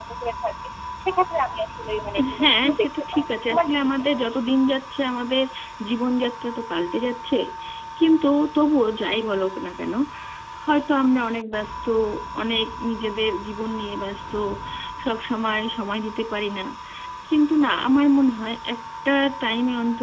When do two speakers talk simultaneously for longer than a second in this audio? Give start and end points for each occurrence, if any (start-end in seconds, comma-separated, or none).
2.4-4.0